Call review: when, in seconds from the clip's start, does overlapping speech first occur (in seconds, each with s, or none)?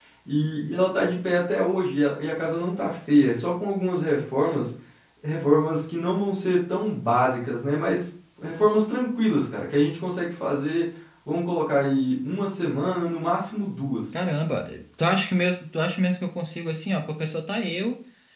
none